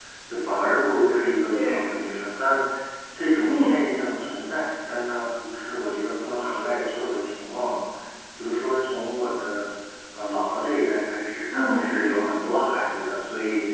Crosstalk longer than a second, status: none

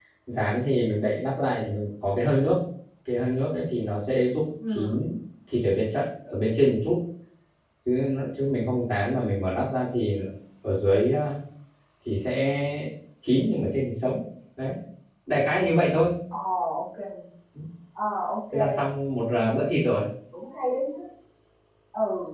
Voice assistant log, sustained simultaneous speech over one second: none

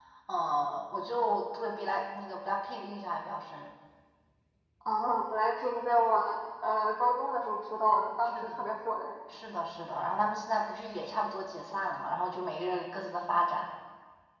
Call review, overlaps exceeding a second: none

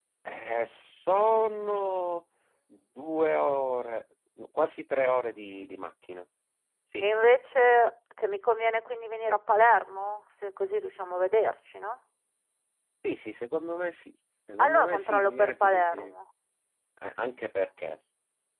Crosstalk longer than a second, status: present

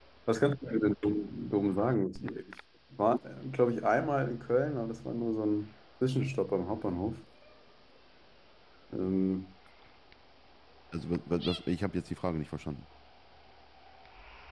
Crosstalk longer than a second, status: none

